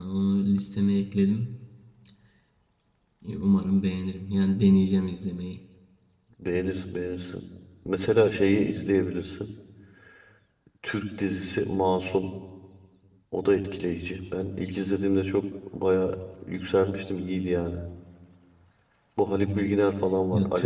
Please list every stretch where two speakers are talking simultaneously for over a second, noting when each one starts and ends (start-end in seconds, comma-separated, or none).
none